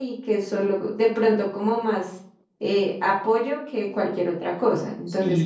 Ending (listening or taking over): taking over